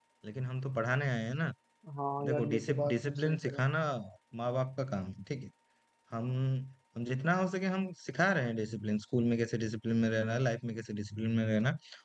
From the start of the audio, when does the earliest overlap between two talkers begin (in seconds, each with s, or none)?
2.2 s